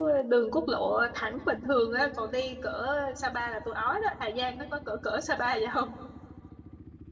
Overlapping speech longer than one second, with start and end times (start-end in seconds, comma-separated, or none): none